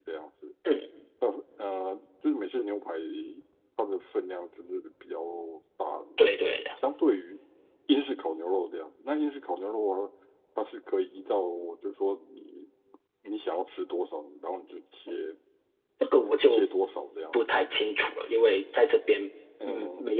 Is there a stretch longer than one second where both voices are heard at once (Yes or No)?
No